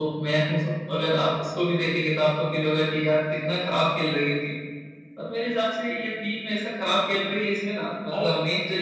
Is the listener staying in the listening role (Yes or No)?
Yes